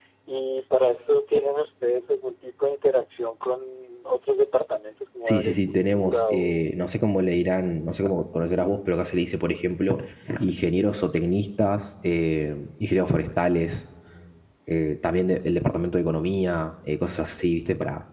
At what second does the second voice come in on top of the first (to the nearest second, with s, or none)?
5 s